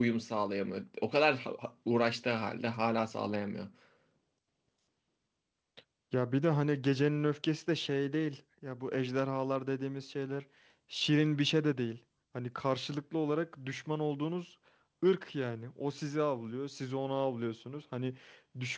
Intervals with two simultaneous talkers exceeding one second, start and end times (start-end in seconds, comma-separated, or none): none